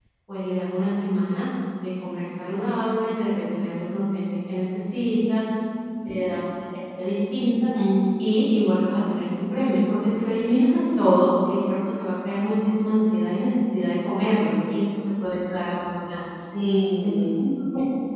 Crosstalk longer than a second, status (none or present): none